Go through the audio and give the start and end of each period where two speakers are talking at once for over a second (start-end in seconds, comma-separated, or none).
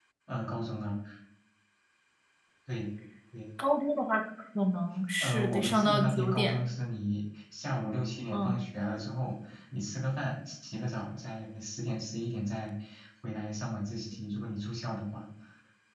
5.2-6.5